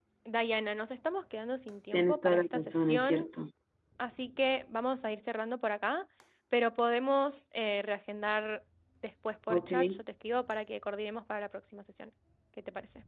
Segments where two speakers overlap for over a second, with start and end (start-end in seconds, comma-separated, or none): 1.9-3.3